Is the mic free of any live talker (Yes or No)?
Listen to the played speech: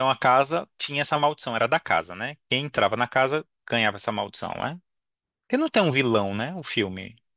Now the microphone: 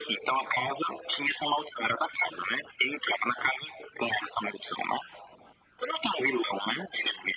Yes